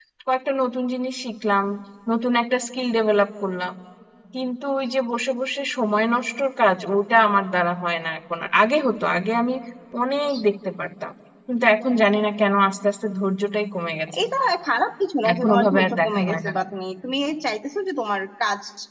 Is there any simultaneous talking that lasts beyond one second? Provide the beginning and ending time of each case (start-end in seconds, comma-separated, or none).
15.3-16.5